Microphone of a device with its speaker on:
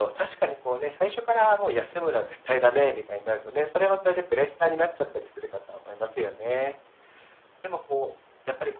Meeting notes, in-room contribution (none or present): none